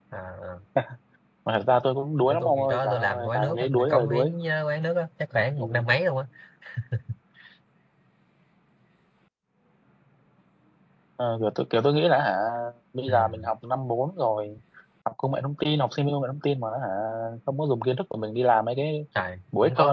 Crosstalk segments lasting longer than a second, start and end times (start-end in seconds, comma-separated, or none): 2.3-4.3